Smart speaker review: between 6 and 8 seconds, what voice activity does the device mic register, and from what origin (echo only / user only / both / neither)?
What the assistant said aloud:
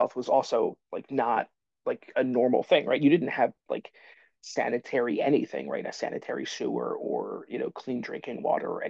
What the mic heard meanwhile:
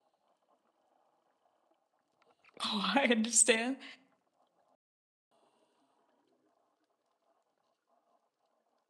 neither